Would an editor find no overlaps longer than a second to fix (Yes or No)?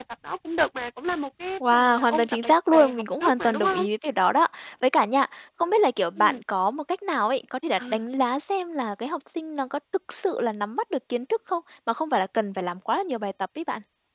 No